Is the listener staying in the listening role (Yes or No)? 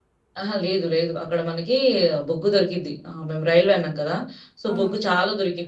Yes